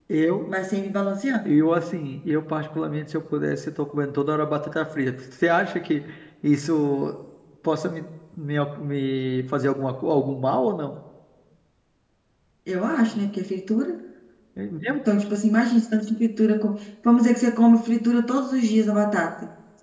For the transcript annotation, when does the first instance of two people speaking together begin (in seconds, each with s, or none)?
none